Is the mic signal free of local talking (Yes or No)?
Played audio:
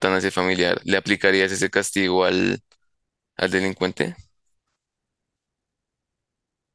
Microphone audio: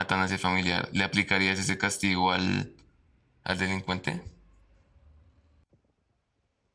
Yes